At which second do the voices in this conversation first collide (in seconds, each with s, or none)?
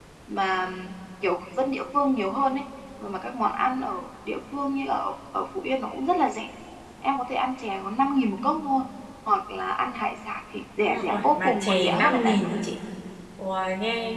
10.9 s